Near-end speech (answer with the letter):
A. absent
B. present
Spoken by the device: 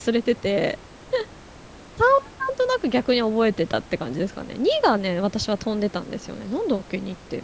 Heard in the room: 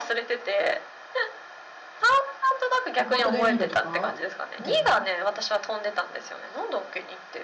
B